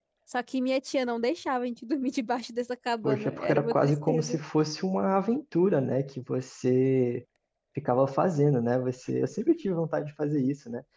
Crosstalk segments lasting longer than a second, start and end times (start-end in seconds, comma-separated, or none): 3.0-4.4